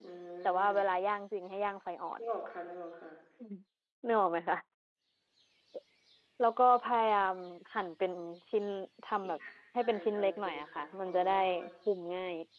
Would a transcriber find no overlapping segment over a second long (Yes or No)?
No